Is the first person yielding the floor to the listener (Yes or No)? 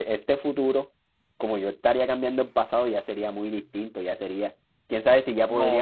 Yes